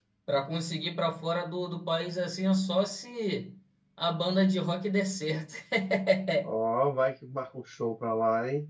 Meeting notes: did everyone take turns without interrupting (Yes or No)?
Yes